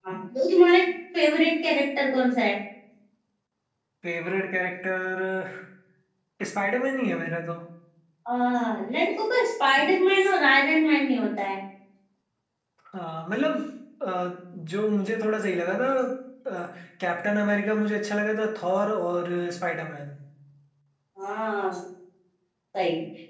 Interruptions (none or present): none